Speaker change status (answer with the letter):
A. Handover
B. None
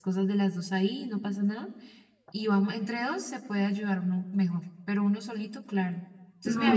A